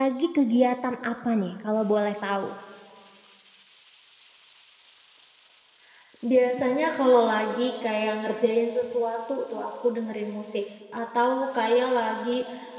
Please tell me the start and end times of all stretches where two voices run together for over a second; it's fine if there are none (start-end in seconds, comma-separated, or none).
none